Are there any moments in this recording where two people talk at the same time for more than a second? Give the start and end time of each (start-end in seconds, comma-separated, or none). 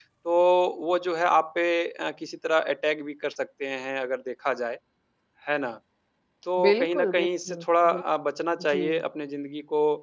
6.6-8.0